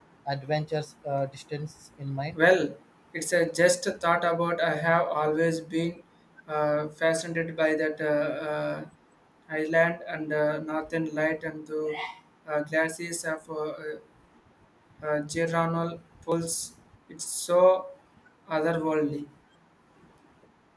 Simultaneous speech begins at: none

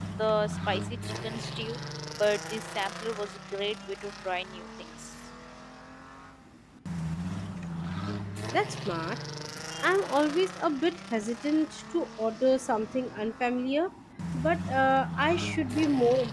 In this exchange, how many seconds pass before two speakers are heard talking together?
none

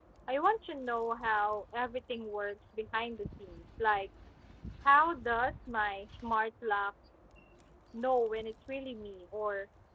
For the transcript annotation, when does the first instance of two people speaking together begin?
none

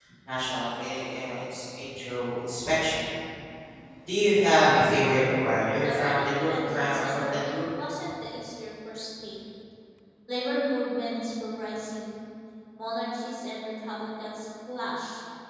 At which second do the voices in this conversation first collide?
6 s

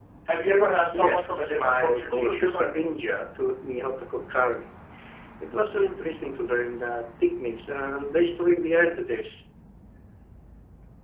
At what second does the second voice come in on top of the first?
1 s

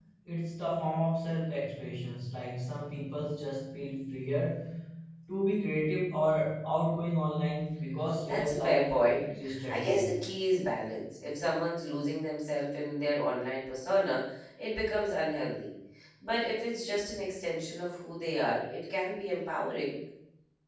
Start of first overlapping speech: 8 s

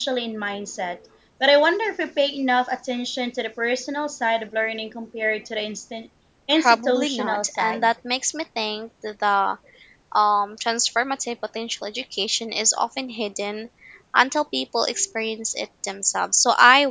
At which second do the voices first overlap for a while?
7 s

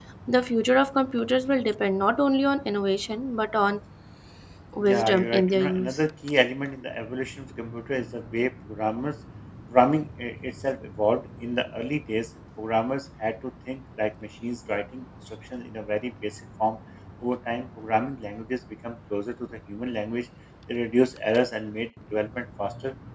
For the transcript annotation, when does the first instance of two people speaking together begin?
5 s

